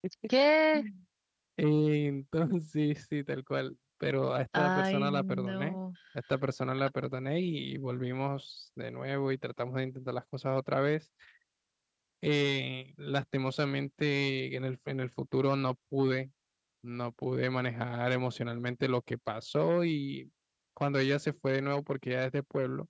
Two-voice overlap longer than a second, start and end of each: 4.5-5.8

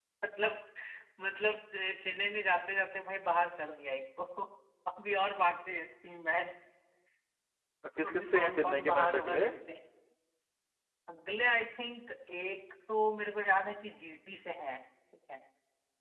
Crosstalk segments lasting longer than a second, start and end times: 8.0-9.5

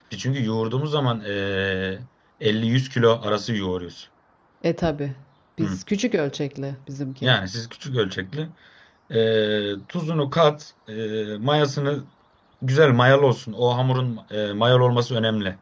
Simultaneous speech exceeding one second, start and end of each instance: none

